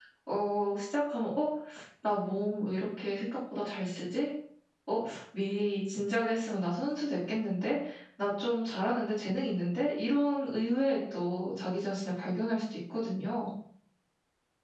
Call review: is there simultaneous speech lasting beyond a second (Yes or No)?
No